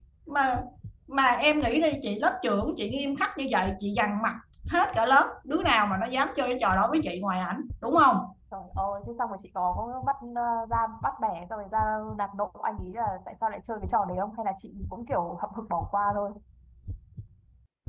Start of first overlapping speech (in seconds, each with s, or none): none